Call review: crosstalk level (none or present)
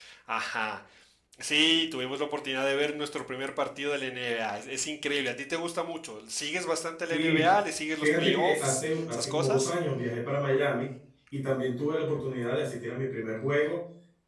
present